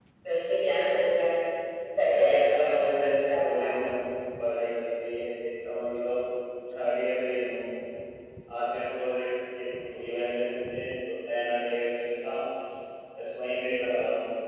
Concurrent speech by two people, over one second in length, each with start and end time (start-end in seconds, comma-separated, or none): 2.1-3.7